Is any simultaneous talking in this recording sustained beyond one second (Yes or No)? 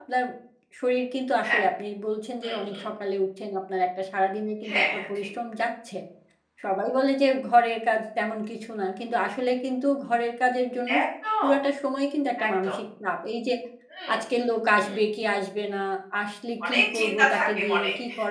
Yes